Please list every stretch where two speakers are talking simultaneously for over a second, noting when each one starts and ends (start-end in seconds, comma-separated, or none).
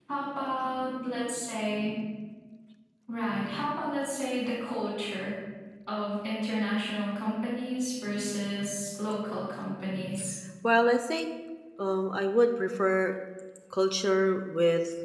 none